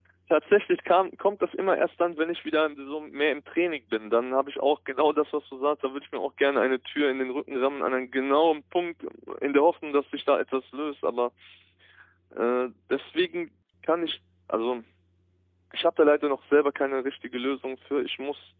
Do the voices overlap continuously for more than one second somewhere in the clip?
No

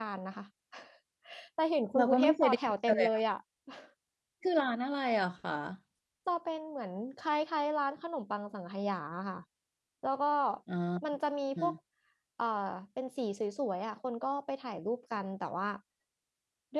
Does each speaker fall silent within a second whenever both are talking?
No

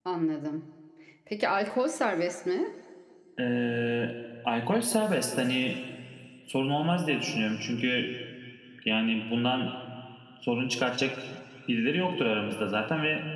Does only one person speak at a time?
Yes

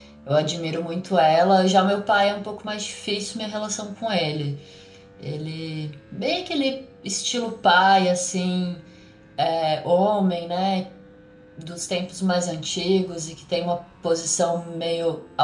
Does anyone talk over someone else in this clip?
No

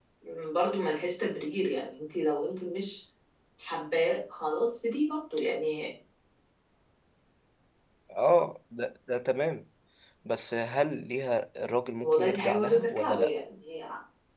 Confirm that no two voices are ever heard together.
No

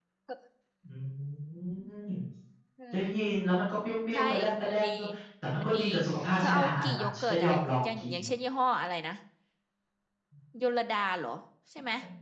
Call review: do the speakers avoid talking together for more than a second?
No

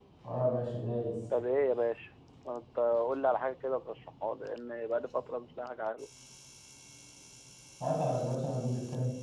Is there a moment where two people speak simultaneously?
No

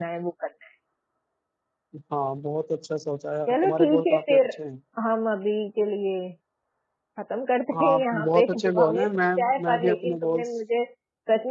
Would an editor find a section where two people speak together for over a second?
Yes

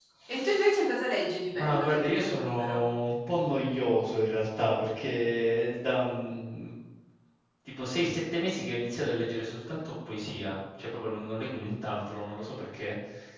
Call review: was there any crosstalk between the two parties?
Yes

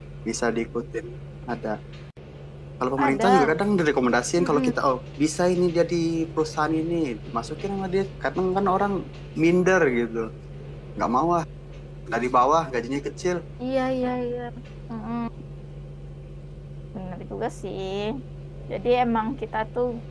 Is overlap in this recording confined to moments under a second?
Yes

